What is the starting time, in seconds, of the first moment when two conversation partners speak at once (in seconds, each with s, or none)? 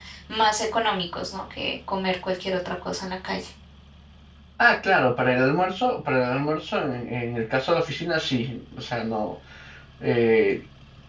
none